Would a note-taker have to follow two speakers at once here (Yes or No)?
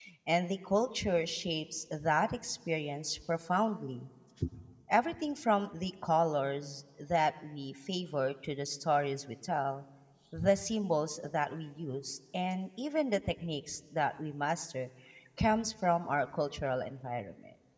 No